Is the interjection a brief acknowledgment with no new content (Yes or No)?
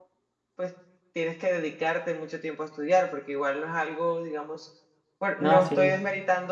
Yes